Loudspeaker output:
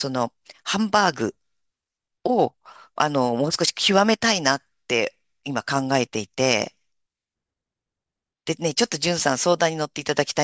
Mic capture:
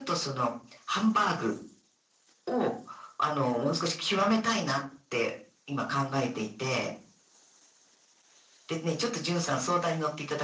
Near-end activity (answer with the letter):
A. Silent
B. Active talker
A